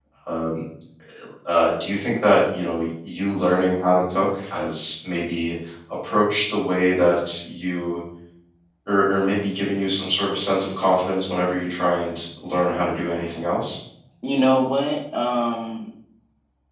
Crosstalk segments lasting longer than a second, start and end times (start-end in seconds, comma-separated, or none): none